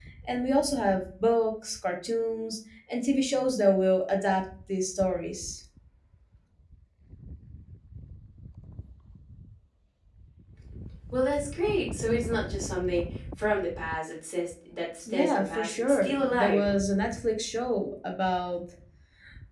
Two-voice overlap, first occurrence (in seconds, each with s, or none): 15.1 s